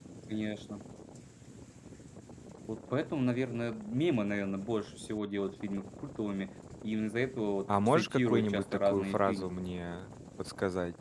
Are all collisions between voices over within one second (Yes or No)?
No